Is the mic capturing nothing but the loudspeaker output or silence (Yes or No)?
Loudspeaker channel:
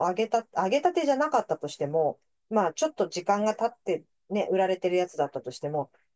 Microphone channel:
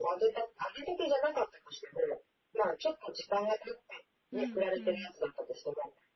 No